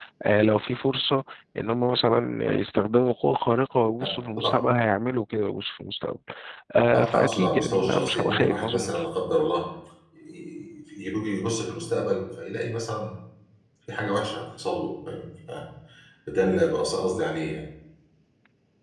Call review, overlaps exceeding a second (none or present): present